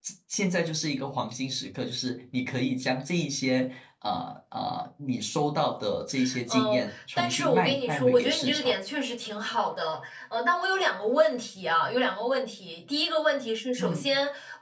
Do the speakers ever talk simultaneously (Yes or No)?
Yes